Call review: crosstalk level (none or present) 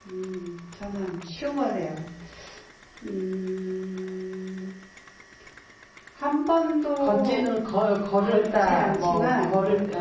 present